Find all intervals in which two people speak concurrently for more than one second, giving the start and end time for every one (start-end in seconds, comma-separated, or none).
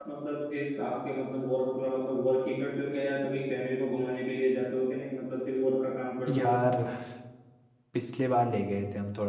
none